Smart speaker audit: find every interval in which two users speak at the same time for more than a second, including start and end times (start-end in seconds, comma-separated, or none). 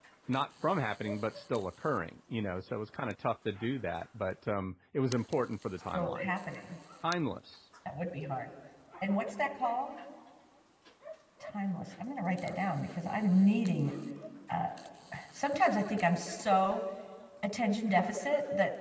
none